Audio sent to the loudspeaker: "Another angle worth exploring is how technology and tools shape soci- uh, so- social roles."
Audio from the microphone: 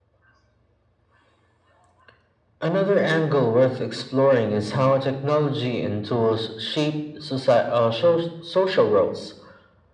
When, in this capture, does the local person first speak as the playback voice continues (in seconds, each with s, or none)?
none